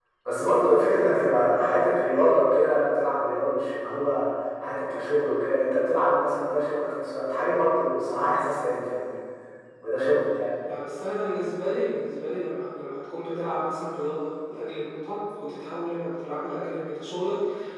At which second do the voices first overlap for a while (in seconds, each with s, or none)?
none